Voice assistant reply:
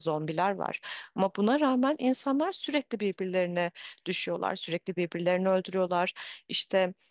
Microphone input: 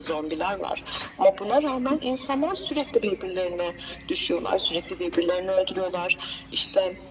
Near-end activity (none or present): none